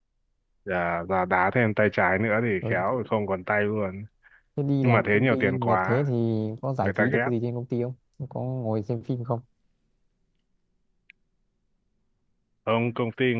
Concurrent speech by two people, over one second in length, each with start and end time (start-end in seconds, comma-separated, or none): 4.8-6.0